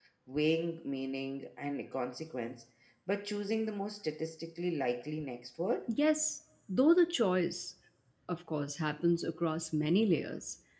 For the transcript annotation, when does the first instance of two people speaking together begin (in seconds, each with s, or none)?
none